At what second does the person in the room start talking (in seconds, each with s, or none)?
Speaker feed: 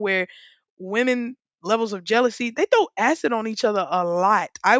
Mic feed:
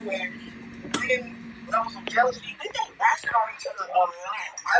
none